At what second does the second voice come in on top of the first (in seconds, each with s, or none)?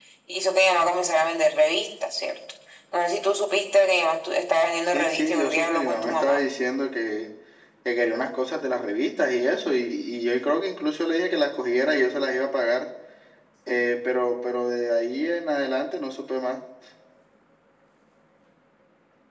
4.9 s